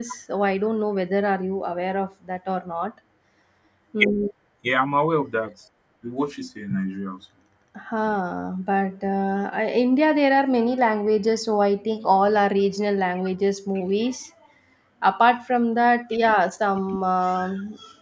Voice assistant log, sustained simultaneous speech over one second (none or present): none